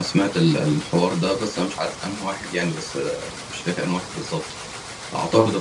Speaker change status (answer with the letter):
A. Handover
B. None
B